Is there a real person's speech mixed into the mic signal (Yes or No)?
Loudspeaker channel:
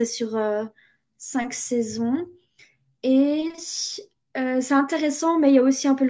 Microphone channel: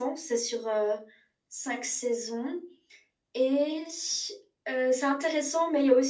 No